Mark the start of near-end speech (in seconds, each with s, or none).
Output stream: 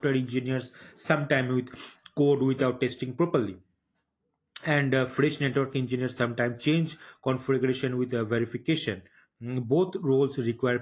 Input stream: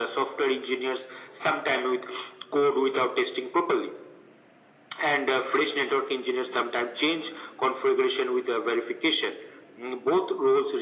none